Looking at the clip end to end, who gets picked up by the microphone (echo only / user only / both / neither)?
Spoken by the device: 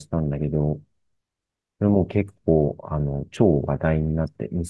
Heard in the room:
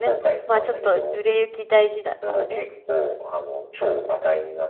both